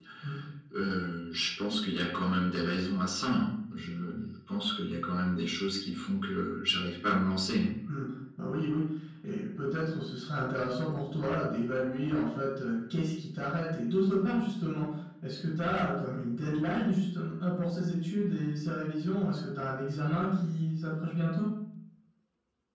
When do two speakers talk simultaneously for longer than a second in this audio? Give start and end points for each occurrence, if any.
none

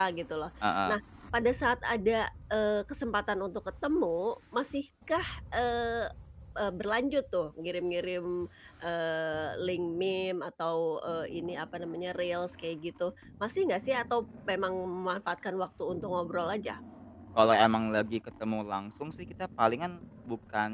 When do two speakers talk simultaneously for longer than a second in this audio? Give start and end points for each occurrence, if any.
none

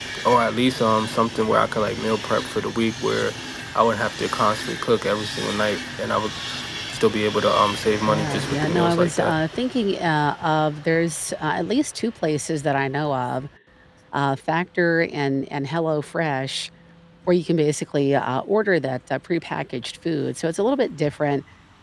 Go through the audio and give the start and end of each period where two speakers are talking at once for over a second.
8.1-9.3

